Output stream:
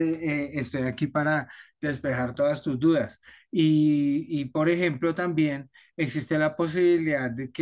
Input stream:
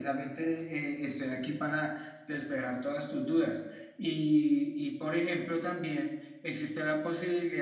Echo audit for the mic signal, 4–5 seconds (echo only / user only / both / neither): echo only